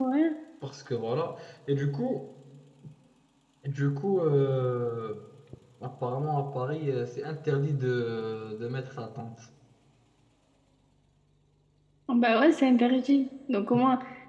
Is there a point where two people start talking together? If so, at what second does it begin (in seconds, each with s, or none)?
none